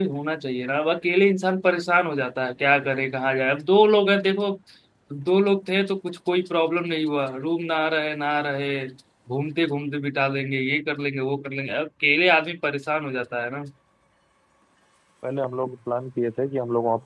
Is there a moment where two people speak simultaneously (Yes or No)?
No